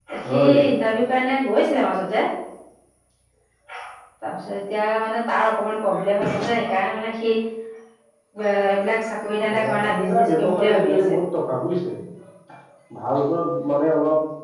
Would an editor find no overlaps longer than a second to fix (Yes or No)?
No